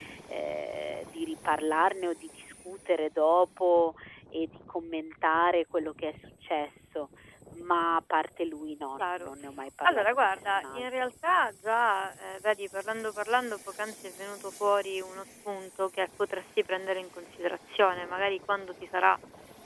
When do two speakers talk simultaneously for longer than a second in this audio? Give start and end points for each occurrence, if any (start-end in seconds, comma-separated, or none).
9.8-11.1